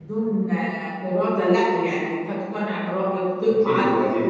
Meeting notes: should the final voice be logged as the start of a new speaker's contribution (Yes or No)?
No